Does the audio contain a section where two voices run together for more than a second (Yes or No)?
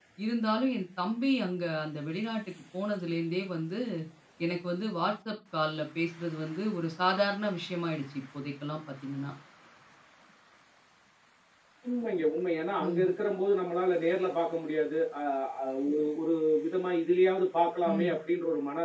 No